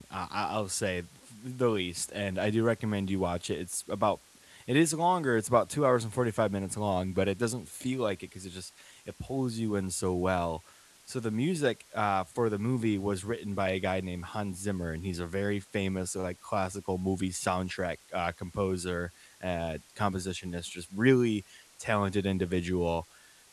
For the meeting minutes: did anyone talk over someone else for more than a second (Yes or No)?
No